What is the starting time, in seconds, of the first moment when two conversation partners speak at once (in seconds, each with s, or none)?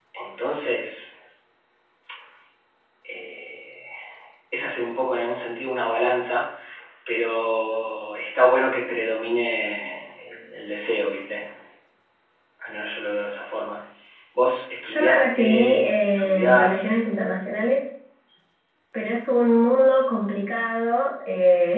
14.8 s